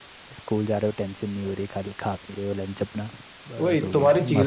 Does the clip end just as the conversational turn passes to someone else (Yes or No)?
Yes